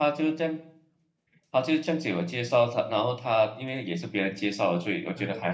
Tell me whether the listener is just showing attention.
No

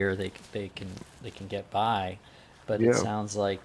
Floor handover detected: No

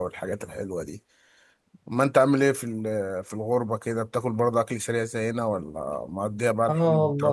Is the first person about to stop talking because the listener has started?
Yes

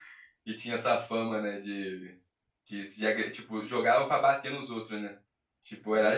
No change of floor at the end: No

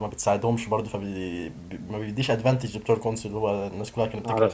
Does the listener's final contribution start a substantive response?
Yes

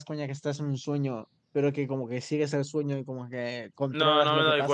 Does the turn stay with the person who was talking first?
No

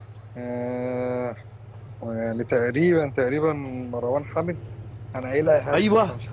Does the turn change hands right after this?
Yes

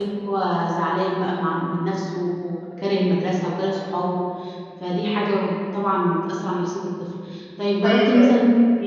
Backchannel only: Yes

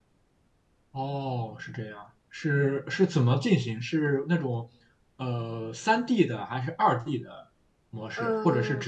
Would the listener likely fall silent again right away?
Yes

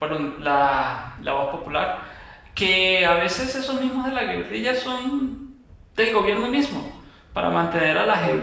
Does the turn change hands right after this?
No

